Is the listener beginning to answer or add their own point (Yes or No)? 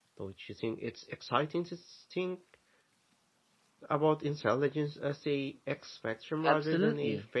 Yes